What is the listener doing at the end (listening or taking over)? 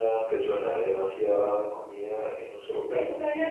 taking over